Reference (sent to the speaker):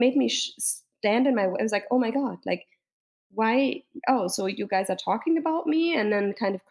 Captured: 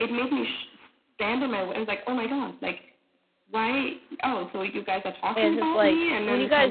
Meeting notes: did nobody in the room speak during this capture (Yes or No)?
No